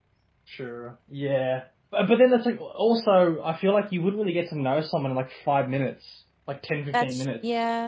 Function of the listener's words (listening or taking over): listening